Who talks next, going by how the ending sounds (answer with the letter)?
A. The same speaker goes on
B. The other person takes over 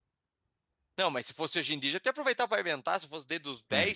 B